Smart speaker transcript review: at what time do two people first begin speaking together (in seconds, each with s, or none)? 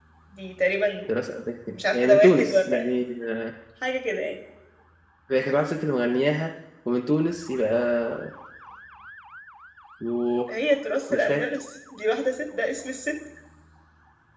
1.7 s